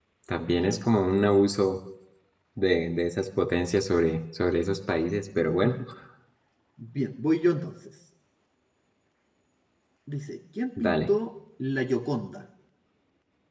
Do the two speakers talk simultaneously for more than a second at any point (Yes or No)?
No